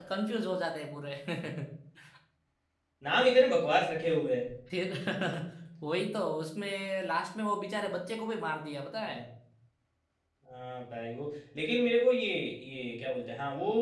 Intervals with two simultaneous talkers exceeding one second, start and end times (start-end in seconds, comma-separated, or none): none